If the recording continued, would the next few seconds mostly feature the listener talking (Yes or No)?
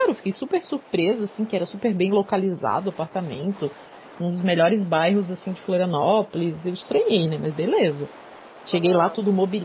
No